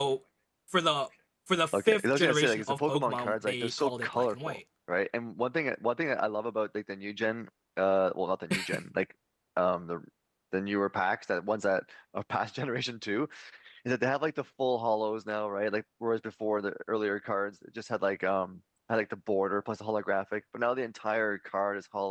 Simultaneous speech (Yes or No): Yes